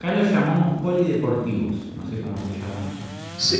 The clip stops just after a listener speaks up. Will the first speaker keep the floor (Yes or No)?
No